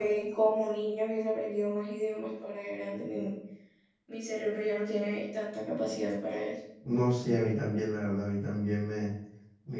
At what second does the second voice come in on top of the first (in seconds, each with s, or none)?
none